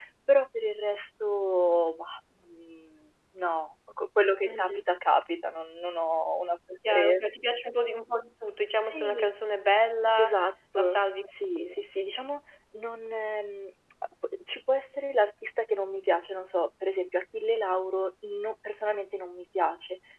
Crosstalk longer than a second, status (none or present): none